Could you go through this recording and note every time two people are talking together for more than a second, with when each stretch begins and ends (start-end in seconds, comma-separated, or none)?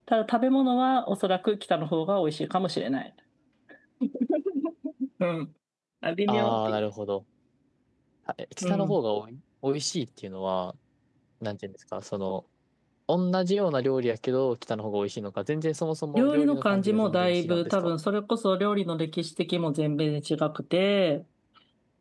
16.1-17.9